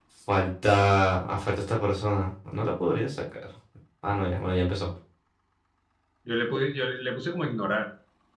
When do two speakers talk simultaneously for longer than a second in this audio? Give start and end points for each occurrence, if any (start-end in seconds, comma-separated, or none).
none